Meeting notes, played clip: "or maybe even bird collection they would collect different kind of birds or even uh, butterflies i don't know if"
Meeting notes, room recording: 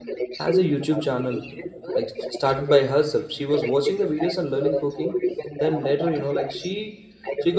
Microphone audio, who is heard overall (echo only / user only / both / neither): both